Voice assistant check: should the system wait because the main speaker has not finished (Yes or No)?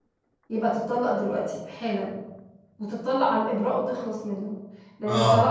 Yes